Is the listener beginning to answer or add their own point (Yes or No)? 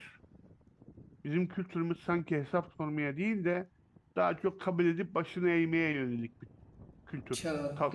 Yes